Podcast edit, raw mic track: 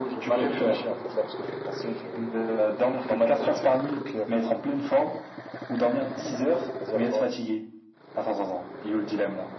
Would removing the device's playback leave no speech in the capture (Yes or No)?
Yes